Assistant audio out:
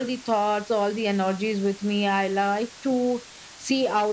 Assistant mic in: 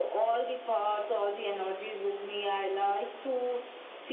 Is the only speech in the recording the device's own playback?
Yes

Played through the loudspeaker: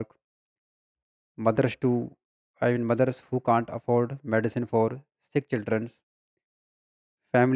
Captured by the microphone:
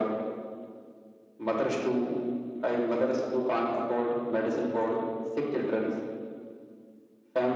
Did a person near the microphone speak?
No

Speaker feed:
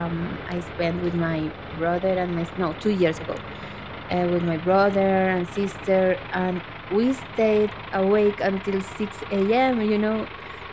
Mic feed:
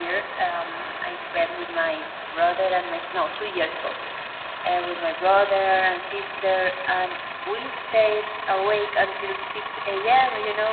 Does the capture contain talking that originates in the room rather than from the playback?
No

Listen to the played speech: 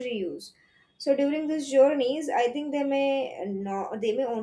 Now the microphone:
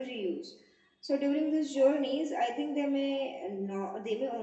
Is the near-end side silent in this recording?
Yes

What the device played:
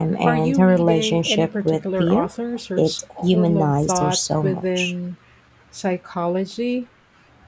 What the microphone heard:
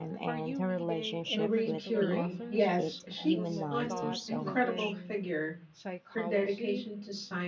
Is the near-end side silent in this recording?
No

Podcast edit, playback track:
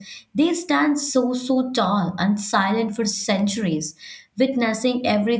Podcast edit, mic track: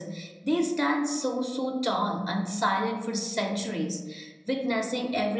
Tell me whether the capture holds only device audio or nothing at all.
Yes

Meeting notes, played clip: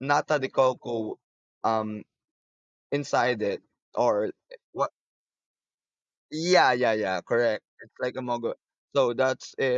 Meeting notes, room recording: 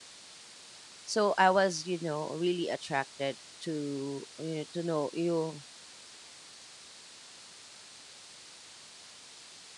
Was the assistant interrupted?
Yes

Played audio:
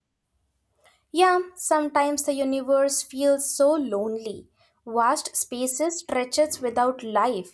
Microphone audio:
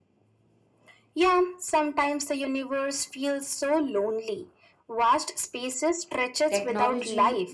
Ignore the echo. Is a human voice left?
Yes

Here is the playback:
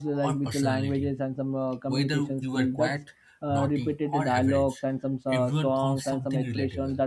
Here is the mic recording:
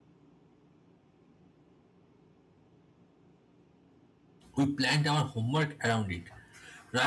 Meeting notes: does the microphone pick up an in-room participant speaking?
Yes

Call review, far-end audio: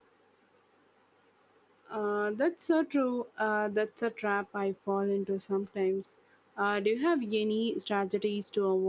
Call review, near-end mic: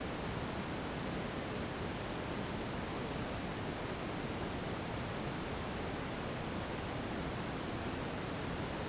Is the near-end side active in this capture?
No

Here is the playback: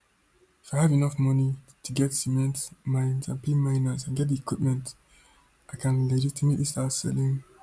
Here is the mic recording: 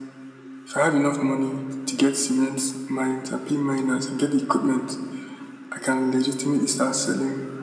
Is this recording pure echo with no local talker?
Yes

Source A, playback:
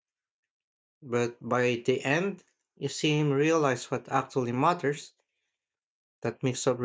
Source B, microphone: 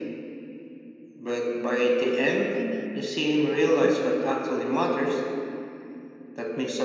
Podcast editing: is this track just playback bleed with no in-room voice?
No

